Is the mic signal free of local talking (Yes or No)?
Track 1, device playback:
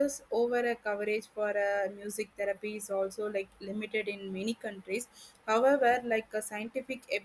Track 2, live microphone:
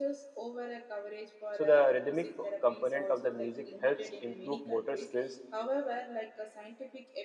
No